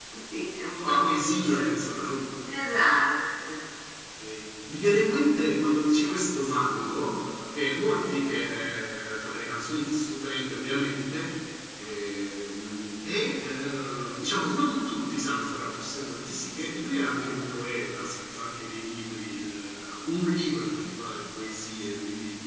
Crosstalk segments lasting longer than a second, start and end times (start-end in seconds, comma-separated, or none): 0.8-2.0